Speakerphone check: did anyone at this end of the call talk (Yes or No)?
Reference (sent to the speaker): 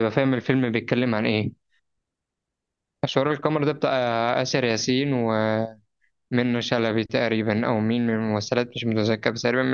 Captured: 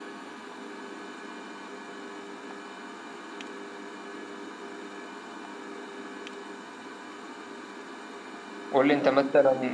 Yes